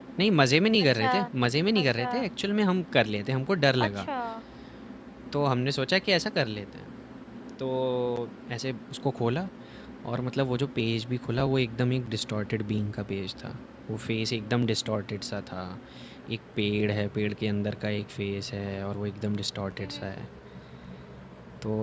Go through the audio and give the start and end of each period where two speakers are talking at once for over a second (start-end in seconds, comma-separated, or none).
none